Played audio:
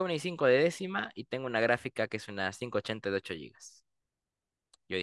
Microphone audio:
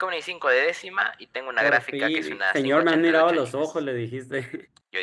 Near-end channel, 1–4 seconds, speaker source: both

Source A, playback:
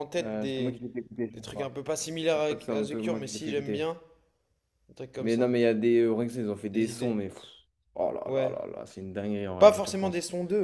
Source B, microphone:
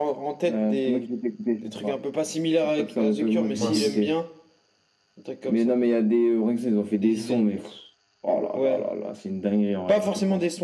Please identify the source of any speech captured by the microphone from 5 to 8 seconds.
echo only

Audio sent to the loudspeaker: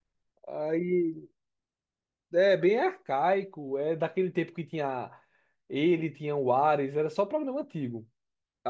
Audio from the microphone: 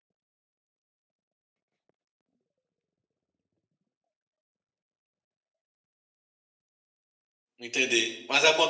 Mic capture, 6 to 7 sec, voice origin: neither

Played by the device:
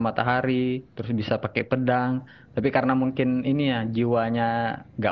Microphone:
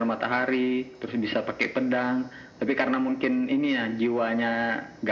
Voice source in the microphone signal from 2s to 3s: echo only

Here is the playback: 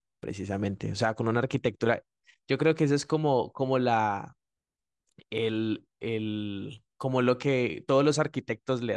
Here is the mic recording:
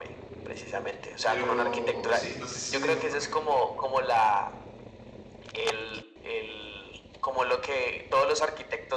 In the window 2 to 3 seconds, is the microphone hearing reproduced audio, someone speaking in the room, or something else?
both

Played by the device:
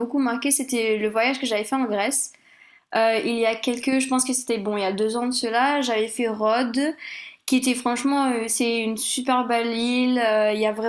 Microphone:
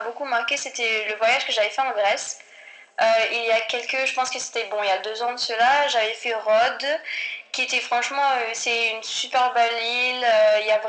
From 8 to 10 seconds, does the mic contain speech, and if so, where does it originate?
echo only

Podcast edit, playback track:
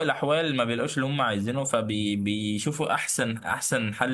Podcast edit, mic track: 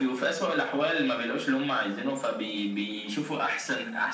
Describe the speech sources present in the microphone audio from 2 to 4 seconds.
echo only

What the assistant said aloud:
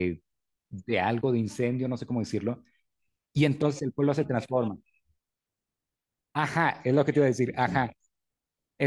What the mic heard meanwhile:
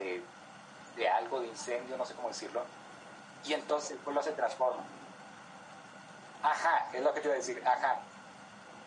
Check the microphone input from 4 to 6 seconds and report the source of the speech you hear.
echo only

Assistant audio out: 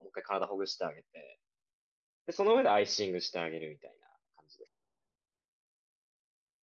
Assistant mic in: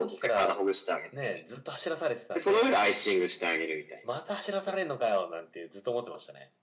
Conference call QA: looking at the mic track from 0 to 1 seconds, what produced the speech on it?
both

